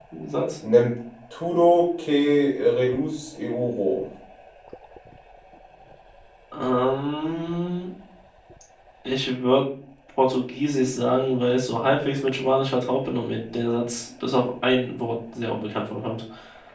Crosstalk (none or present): none